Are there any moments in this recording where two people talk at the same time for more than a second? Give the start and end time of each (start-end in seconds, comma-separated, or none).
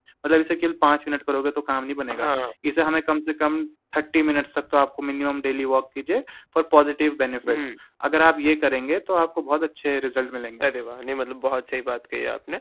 none